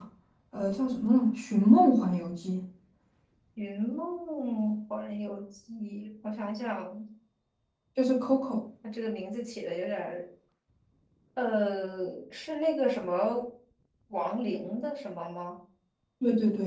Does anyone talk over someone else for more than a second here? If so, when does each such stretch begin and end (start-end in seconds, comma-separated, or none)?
none